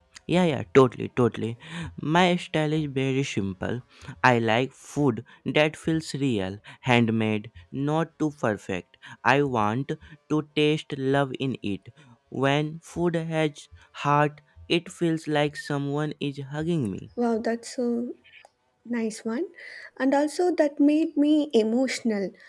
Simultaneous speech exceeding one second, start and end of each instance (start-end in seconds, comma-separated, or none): none